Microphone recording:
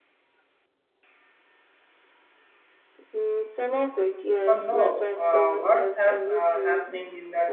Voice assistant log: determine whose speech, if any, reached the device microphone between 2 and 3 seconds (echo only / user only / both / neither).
neither